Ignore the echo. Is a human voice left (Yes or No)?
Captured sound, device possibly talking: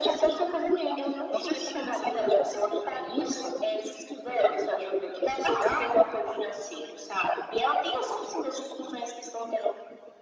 No